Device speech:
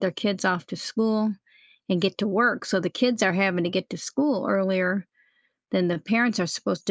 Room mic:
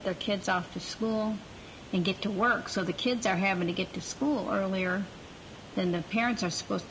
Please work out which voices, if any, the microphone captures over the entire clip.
echo only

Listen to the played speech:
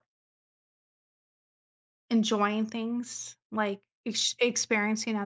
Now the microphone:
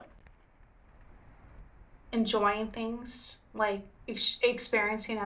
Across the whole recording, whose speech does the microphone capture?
echo only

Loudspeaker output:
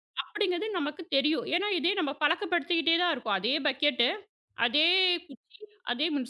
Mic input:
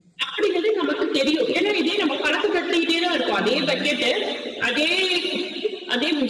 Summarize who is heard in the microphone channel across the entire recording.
both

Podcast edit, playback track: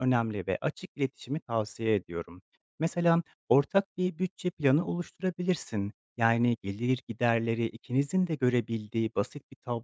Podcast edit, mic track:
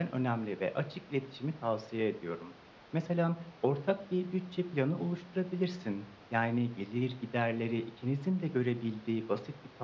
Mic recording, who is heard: echo only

